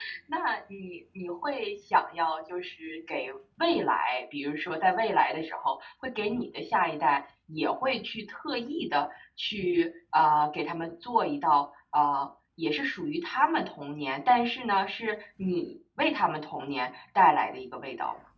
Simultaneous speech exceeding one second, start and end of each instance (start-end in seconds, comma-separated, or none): none